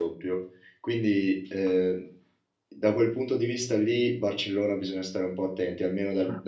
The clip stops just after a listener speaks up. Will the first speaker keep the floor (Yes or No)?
Yes